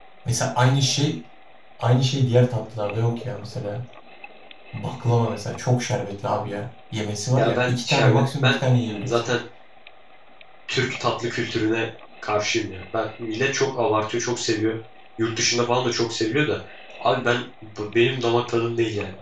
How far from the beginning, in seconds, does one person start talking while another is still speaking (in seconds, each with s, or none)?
7.4 s